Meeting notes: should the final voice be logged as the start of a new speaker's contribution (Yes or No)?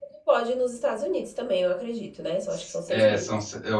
Yes